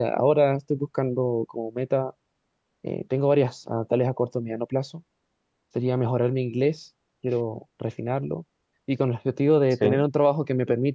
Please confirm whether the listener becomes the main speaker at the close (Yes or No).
No